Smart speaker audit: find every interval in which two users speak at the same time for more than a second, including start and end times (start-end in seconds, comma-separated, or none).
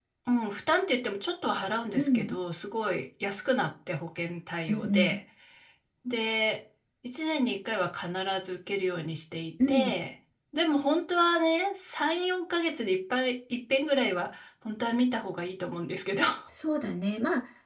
none